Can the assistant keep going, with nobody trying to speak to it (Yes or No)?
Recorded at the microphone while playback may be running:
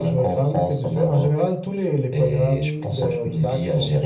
Yes